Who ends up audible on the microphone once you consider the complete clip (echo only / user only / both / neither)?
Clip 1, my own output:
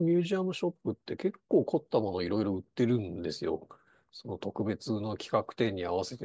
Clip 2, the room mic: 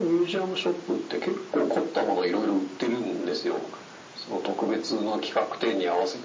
echo only